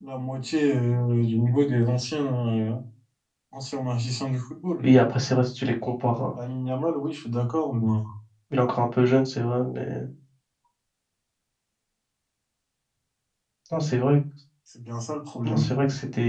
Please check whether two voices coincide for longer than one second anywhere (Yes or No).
No